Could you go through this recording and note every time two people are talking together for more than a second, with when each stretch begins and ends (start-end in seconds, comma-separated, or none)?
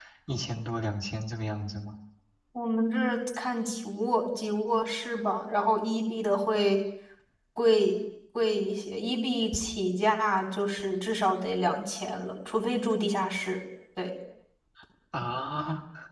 none